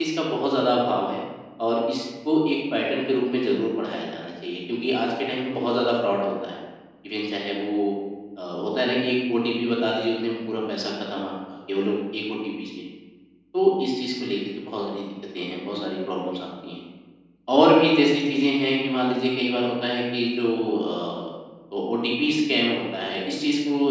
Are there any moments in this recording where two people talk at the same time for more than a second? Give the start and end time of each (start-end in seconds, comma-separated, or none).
none